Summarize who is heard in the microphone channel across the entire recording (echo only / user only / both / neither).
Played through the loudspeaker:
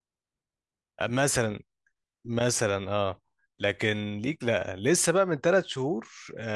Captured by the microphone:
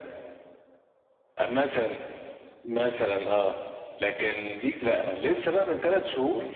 echo only